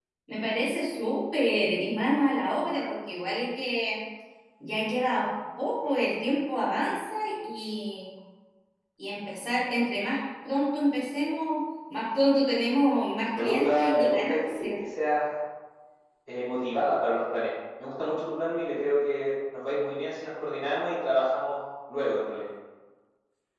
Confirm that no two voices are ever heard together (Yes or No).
No